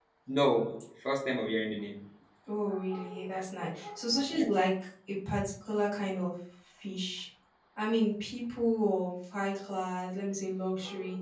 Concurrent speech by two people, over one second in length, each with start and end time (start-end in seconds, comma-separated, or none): none